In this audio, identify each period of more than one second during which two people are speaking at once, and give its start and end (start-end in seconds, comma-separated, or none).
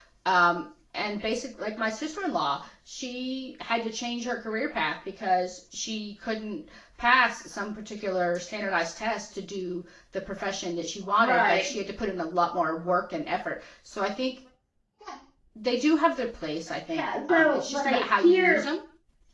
17.0-18.6